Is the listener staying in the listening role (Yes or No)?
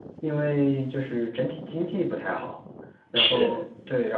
Yes